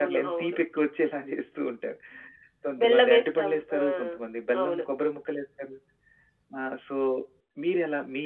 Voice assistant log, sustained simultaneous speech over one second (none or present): present